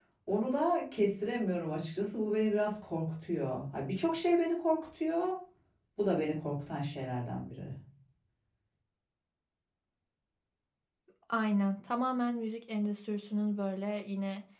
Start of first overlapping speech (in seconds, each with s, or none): none